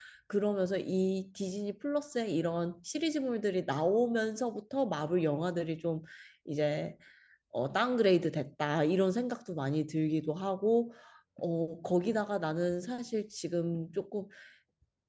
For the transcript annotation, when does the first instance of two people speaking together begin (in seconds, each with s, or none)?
none